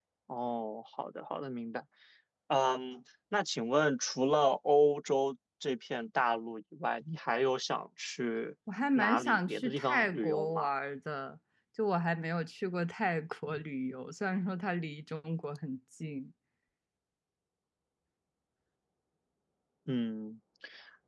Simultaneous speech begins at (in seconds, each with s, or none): 8.9 s